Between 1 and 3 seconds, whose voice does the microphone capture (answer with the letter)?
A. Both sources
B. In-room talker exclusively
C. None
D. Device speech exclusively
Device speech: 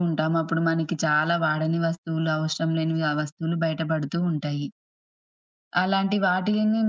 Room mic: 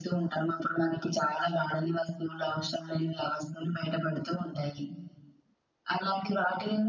D